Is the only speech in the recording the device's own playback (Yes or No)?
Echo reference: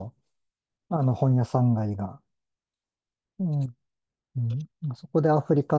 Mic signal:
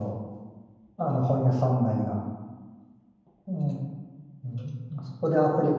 Yes